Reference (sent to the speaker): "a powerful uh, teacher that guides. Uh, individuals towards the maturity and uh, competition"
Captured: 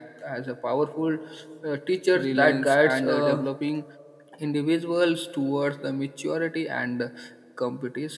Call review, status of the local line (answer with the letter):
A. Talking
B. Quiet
A